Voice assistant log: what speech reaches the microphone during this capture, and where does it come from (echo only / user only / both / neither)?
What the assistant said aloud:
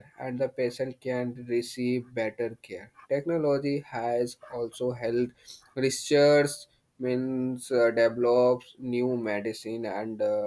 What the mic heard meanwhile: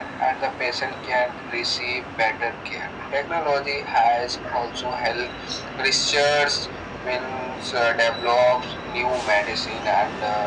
echo only